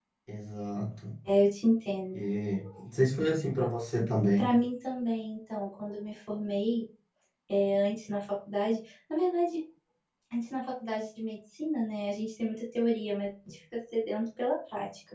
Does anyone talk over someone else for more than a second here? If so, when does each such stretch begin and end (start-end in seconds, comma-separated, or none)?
none